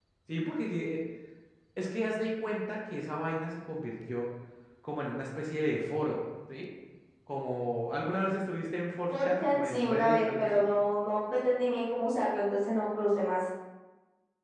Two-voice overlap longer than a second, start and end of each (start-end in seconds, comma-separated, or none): 9.1-10.6